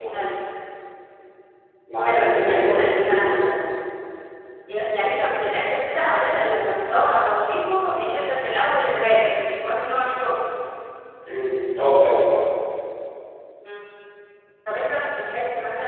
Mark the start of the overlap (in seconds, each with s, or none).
2.0 s